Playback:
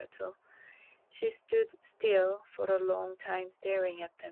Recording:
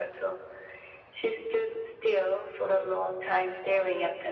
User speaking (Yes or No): No